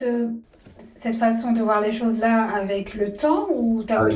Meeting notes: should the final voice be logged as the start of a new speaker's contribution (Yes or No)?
Yes